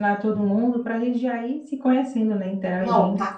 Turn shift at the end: Yes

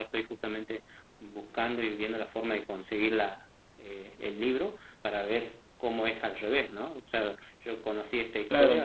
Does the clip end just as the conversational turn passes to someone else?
No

